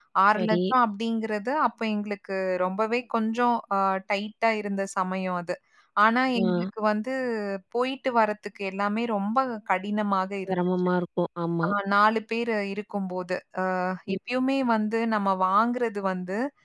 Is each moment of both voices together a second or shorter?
Yes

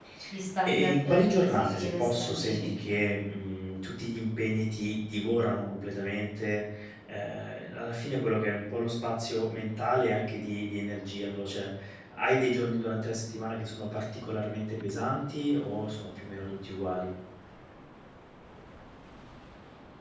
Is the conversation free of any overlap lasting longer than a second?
No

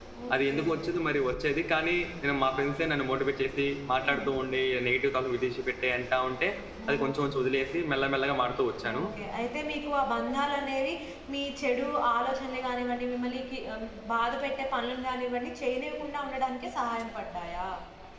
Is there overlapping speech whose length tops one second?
No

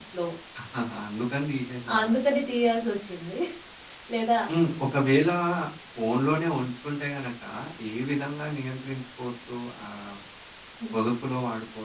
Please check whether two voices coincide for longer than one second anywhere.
No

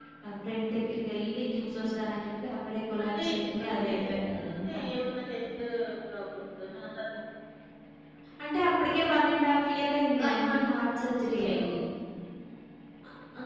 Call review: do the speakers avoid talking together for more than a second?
No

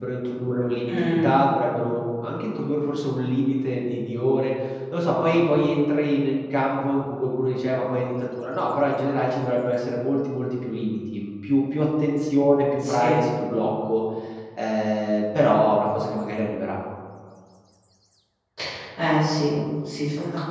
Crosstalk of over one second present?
No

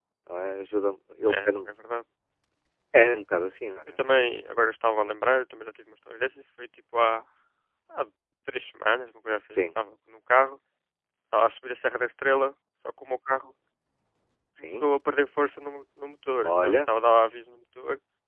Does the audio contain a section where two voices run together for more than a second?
No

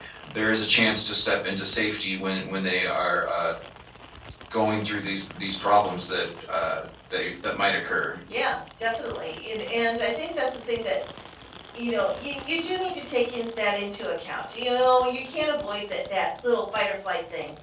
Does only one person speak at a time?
Yes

